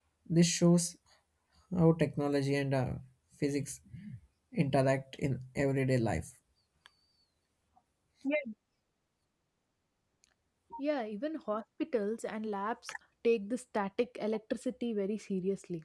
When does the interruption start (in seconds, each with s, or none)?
none